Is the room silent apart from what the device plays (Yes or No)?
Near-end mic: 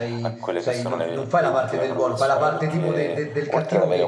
No